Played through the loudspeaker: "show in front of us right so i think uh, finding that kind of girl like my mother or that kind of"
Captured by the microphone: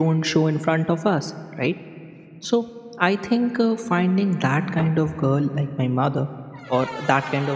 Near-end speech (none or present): none